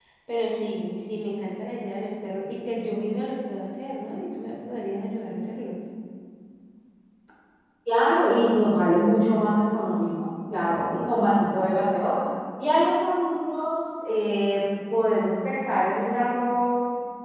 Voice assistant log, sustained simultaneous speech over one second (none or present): none